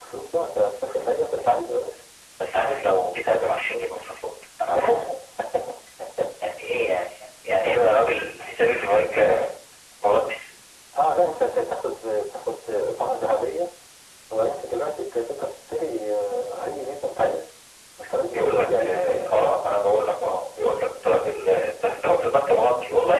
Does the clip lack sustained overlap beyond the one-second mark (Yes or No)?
No